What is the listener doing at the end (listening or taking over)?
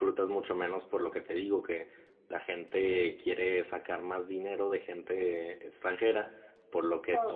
listening